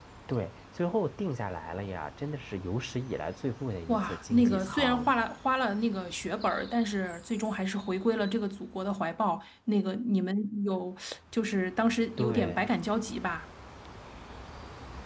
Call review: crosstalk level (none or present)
present